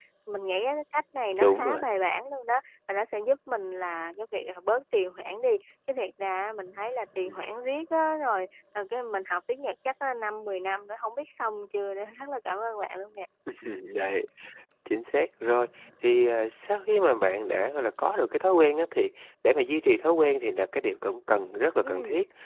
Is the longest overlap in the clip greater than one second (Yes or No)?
No